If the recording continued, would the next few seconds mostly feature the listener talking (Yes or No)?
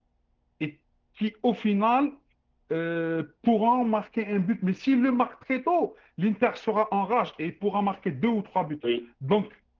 No